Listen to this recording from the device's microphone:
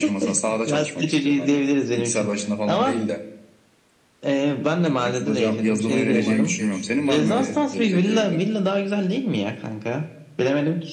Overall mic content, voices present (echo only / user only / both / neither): both